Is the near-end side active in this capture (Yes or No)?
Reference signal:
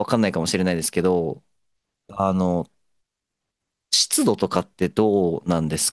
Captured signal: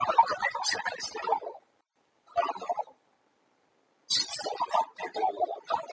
No